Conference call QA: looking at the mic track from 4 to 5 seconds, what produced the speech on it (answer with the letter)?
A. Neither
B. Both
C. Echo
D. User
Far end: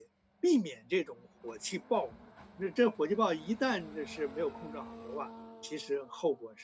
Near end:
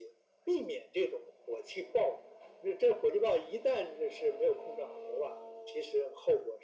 C